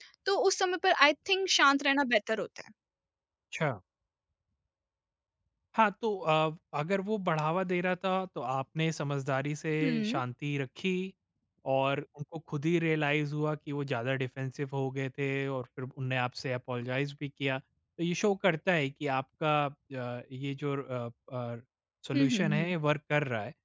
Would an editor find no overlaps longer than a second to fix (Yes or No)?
Yes